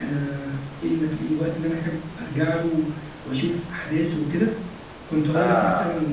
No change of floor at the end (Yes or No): Yes